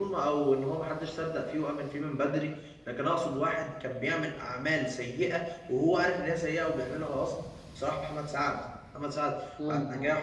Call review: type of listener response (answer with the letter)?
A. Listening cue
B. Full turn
A